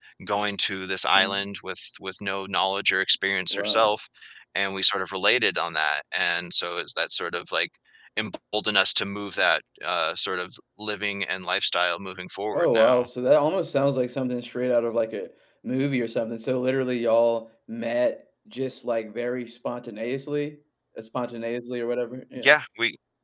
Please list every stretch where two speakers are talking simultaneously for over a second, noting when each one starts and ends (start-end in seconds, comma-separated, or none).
none